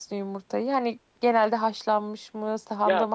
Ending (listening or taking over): taking over